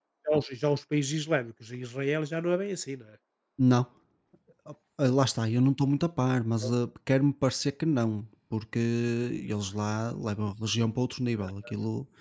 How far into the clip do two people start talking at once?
none

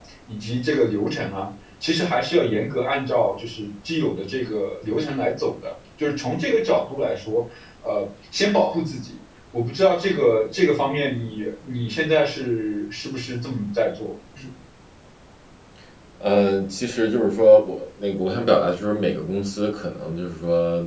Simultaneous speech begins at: none

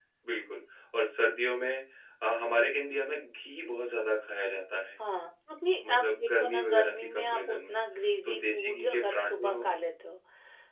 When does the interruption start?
5.9 s

